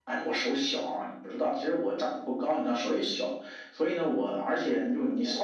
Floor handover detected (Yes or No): No